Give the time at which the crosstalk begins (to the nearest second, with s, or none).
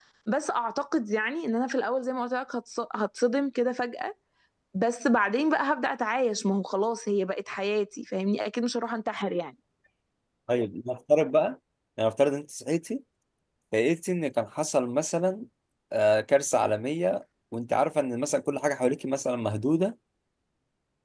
none